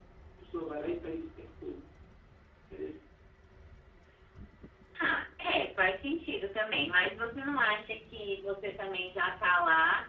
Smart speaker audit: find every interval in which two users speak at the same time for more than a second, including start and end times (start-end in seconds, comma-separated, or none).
none